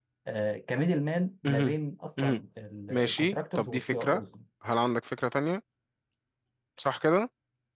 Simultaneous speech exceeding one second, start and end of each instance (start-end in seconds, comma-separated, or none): 2.9-4.2